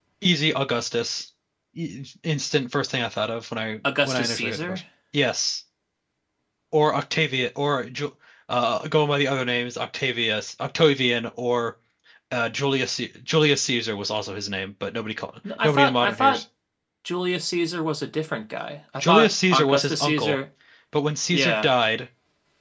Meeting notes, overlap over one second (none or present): present